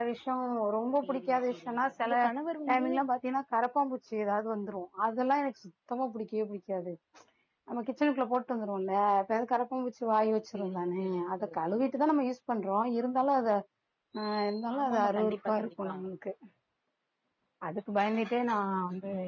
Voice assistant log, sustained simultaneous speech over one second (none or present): present